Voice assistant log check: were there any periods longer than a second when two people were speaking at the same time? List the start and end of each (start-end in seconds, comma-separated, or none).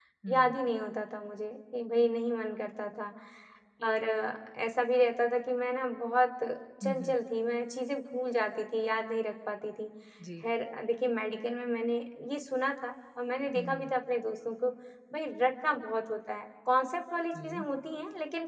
none